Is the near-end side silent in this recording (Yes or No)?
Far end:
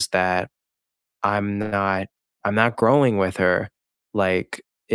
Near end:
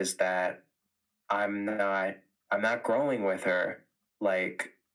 Yes